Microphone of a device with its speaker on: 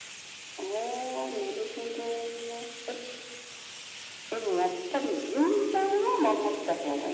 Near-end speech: none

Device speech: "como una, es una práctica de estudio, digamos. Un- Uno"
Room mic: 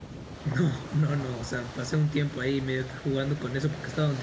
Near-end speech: present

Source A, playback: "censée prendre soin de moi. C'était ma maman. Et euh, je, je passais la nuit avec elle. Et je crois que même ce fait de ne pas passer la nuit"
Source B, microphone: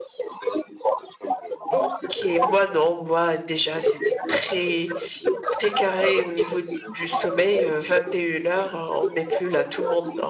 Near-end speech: present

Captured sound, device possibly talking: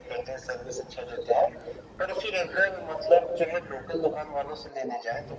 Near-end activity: none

